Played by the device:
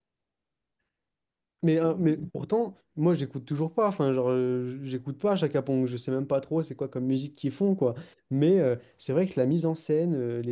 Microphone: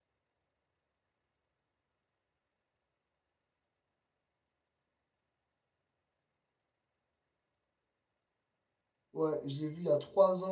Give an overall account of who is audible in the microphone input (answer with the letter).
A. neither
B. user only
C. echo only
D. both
B